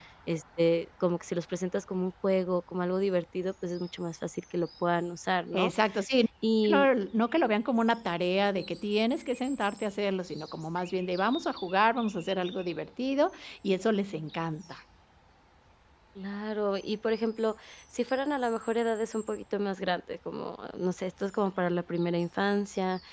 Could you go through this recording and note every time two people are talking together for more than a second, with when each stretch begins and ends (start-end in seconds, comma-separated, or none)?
none